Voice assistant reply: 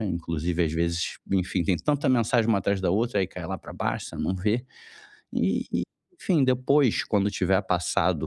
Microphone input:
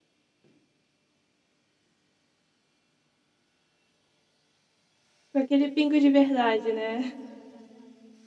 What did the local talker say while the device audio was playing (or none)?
Com aquele pingo de verdade, né?